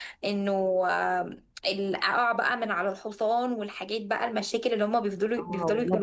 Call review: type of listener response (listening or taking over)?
taking over